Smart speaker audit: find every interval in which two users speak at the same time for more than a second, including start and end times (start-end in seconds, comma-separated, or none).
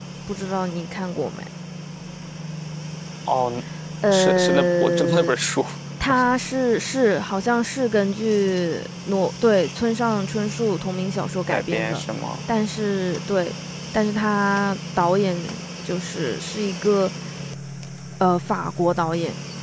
4.1-5.3